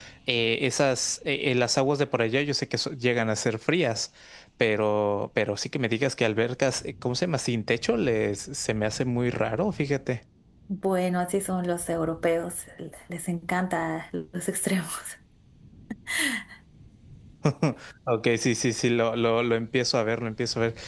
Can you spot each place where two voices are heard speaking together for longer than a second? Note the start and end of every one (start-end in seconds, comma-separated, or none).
none